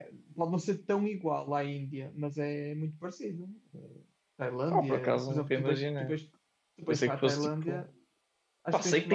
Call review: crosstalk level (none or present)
present